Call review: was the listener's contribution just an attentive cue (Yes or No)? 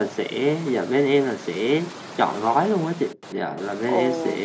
Yes